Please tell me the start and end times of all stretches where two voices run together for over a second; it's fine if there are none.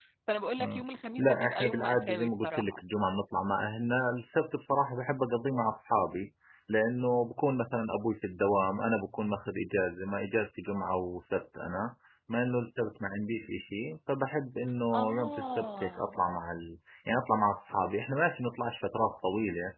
1.2-2.8, 14.9-16.1

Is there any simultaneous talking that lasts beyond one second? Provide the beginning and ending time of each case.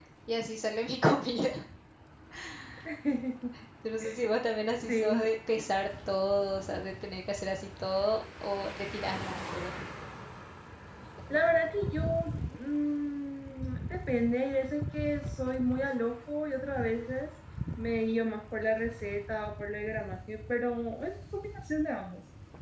none

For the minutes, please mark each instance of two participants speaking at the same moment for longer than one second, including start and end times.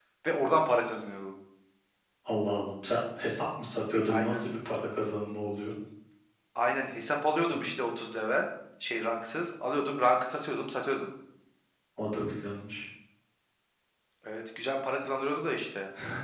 none

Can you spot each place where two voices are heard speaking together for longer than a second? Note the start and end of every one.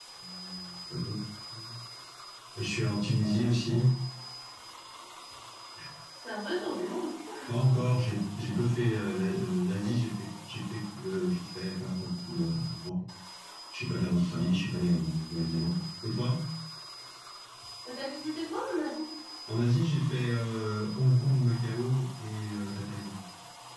none

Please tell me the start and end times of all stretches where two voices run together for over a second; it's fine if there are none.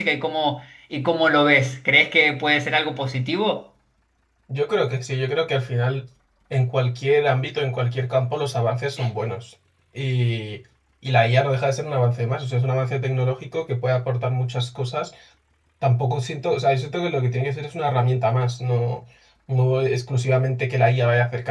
none

